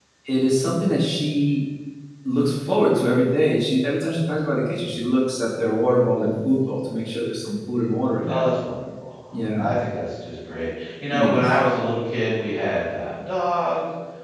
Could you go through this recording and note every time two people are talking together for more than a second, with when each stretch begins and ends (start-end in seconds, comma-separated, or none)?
none